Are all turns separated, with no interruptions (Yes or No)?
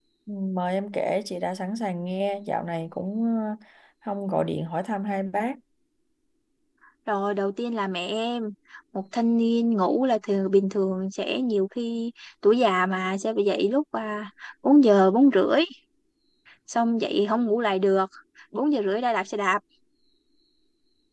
Yes